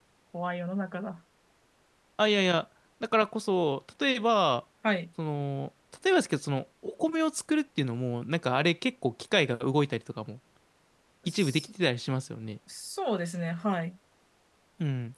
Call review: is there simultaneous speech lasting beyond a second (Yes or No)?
No